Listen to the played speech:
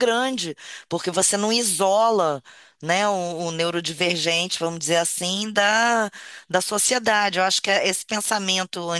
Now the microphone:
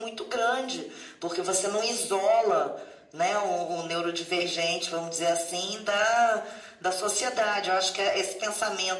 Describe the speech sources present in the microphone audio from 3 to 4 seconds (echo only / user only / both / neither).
echo only